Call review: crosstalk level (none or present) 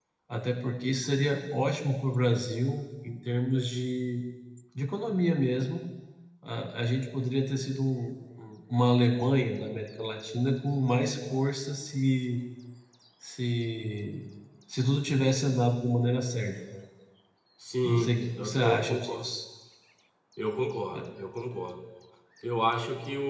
present